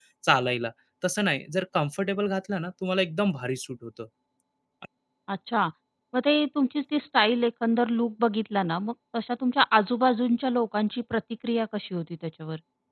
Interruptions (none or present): none